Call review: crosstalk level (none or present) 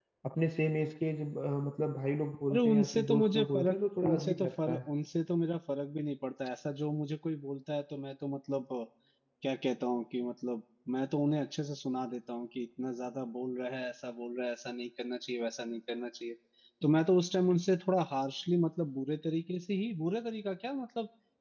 present